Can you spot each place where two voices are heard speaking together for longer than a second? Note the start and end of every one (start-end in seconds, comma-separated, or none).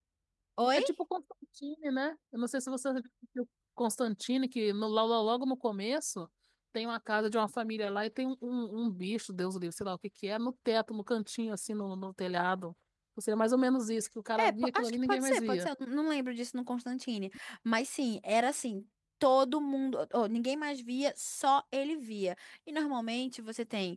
14.4-15.7